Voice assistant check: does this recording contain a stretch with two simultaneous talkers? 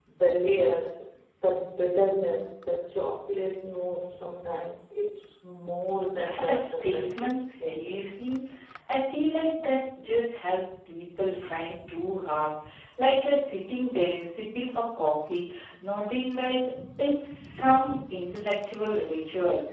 Yes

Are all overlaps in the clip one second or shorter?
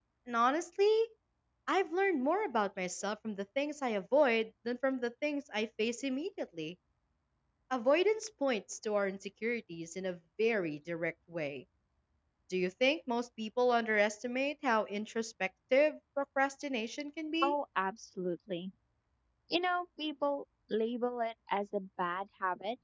Yes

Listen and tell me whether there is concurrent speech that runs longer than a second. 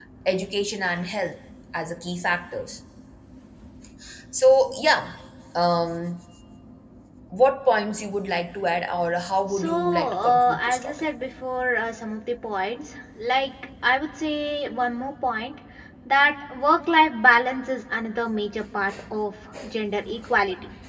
Yes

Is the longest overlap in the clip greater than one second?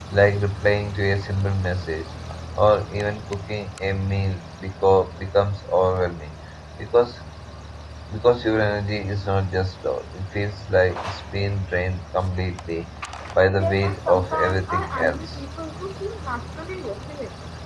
Yes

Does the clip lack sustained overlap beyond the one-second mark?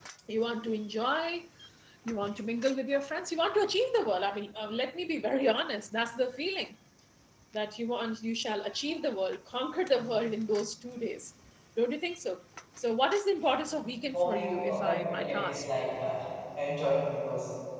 No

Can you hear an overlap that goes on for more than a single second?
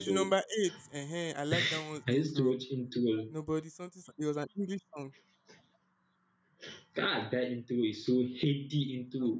No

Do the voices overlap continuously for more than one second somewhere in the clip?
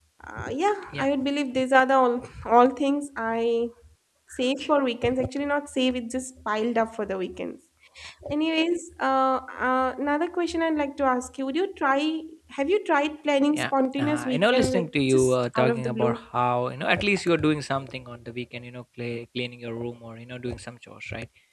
Yes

